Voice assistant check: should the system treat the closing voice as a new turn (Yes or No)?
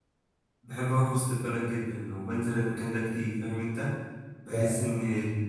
No